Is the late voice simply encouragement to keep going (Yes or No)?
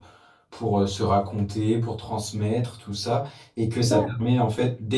Yes